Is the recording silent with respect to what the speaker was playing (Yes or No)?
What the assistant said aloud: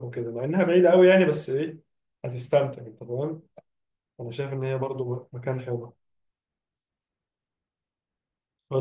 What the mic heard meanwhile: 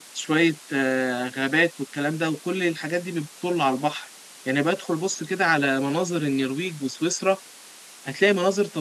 Yes